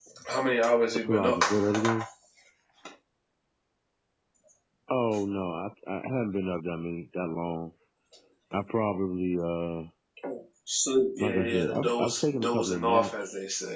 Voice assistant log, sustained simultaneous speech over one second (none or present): present